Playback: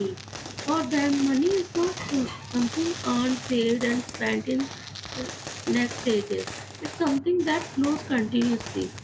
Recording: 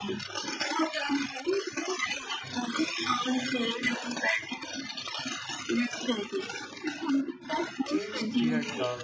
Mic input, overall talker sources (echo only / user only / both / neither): both